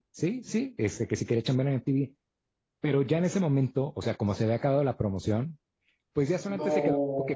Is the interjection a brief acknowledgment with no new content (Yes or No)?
Yes